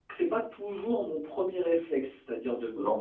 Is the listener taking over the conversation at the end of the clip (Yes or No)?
No